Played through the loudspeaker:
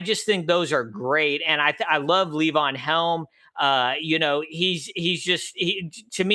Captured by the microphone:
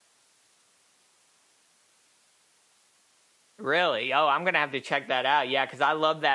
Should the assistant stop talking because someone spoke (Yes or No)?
Yes